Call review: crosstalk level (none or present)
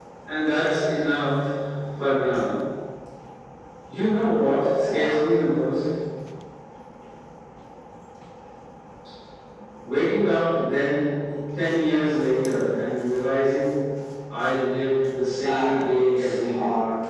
present